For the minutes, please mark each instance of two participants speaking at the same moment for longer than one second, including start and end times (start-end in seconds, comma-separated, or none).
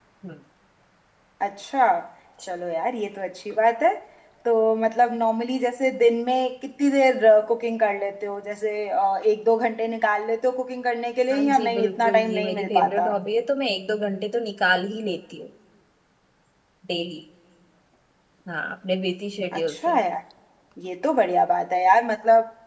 11.3-13.1